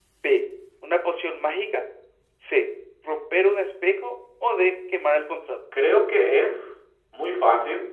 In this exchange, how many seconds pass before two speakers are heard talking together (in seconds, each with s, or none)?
none